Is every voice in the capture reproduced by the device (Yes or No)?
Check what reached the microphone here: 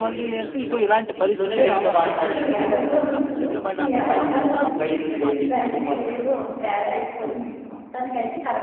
No